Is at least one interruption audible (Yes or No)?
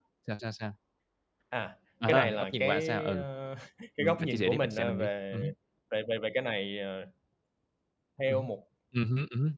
Yes